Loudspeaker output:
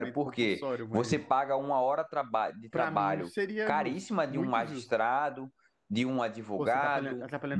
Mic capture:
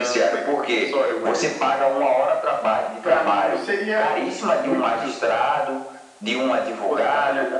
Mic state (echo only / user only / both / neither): echo only